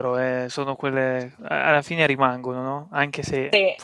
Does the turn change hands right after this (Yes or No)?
No